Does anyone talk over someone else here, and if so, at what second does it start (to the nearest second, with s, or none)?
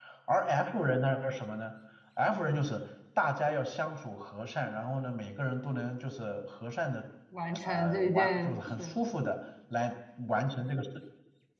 8 s